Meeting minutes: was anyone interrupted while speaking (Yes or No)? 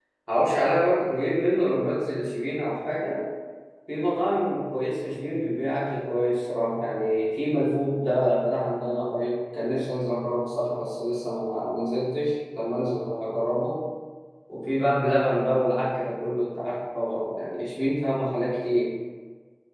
No